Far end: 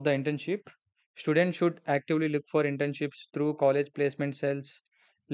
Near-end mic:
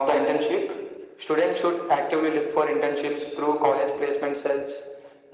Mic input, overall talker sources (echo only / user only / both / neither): echo only